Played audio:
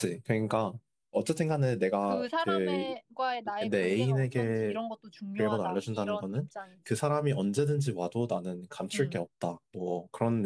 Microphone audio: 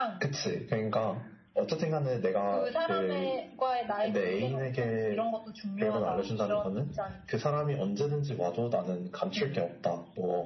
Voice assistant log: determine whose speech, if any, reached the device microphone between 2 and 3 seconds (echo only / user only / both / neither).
echo only